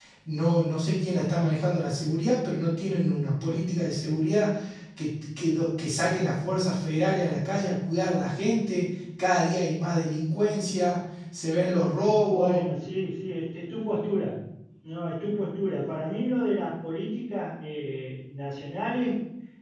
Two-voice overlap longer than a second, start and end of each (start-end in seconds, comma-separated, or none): none